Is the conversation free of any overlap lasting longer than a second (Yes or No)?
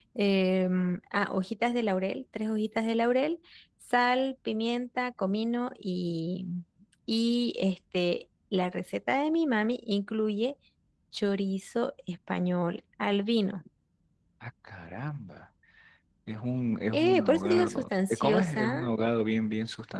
No